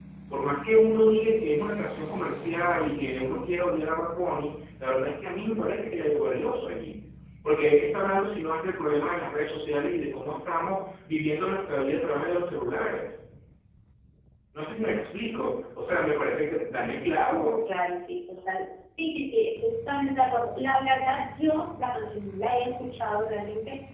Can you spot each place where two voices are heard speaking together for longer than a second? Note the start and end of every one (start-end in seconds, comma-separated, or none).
none